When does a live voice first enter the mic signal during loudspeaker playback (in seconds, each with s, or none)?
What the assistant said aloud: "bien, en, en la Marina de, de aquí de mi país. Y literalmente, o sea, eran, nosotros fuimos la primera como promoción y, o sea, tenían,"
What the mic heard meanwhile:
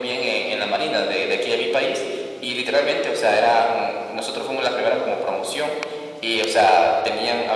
none